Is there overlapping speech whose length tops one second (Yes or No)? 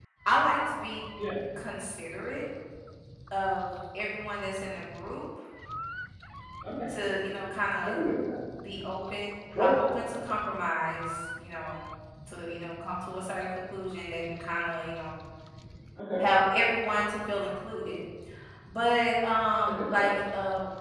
No